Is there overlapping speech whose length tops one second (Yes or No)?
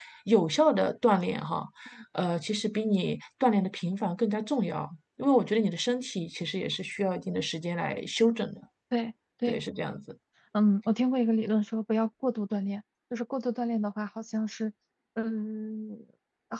No